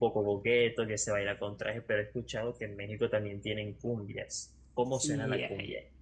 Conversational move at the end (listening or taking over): taking over